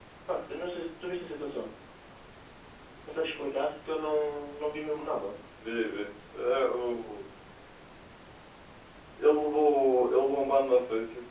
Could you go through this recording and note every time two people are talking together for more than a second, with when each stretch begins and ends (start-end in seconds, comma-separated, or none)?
none